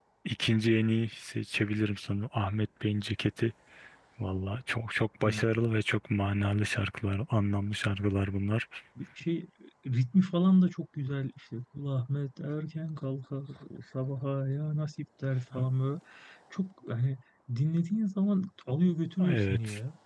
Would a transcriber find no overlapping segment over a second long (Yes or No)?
Yes